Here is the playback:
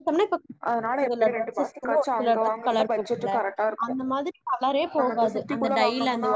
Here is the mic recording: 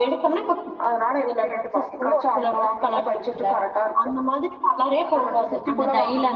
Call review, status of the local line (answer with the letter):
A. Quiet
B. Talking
A